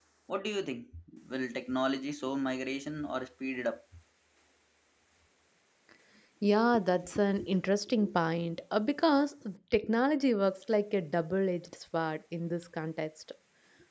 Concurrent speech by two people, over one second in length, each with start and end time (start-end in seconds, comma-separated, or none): none